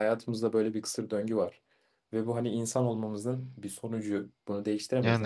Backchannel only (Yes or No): Yes